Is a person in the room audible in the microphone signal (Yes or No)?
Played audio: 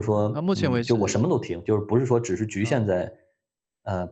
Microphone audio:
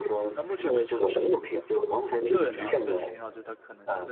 Yes